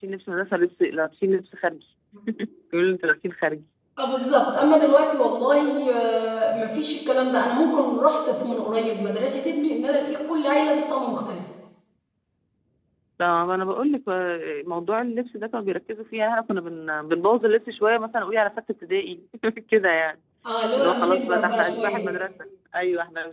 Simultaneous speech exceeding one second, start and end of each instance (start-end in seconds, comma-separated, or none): 20.8-22.1